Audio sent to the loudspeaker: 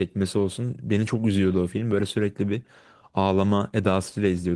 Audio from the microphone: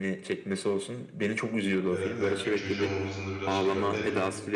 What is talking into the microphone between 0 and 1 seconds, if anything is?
echo only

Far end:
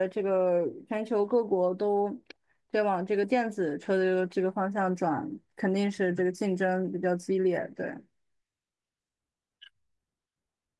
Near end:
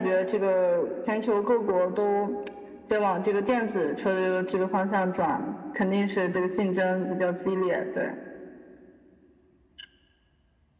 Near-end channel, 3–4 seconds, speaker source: echo only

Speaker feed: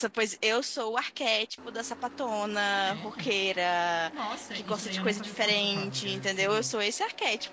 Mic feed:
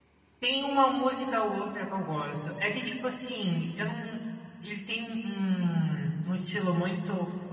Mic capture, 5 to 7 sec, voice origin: user only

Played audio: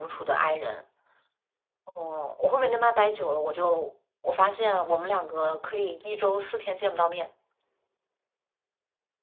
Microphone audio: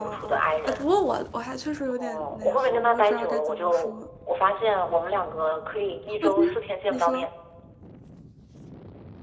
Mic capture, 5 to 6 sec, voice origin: echo only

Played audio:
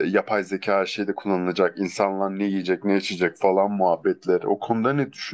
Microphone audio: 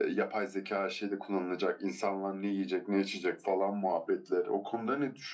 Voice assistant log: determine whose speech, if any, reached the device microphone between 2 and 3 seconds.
echo only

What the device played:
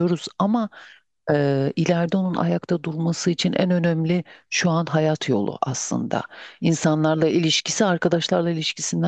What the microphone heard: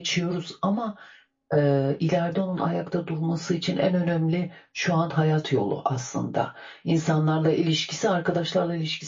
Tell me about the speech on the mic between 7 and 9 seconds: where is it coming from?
echo only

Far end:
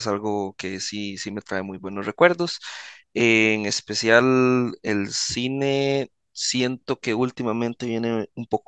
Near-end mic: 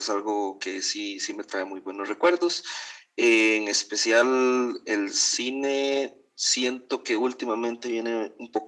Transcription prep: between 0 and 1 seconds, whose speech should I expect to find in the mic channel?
echo only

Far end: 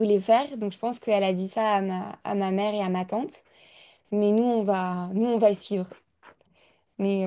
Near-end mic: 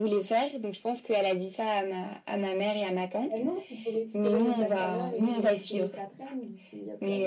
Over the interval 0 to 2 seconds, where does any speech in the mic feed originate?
echo only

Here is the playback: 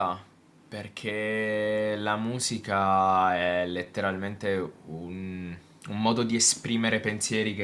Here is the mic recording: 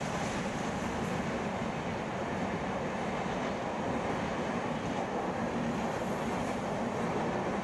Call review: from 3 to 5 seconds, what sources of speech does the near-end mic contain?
neither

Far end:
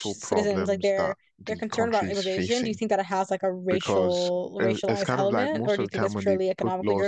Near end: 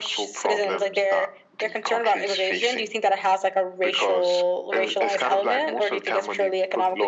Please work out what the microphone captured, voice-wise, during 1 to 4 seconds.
echo only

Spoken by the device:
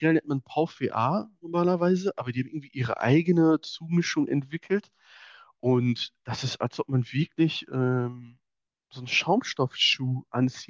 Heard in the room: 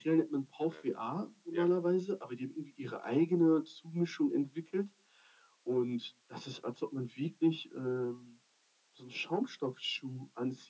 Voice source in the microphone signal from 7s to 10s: echo only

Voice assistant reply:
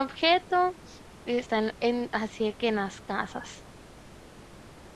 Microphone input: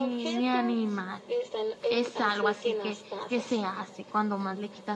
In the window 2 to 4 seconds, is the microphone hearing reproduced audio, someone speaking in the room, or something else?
both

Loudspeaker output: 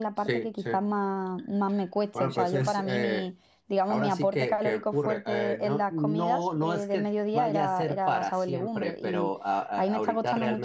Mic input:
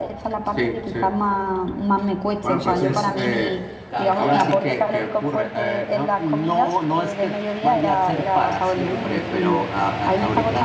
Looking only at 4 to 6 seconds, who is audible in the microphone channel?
both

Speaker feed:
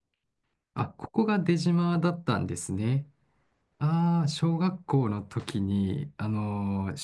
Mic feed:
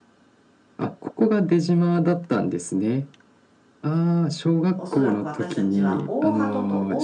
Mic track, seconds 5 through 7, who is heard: both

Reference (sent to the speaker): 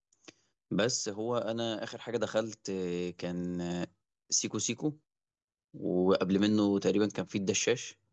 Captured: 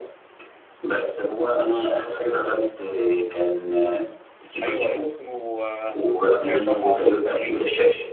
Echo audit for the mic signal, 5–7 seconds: both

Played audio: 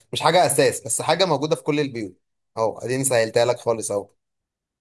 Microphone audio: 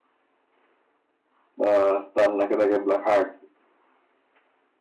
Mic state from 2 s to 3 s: user only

